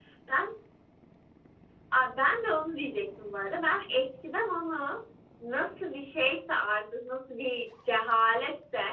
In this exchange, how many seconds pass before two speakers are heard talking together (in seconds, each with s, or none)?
none